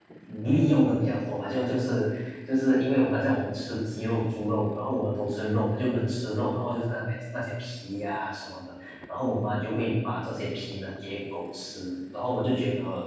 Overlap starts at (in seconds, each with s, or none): none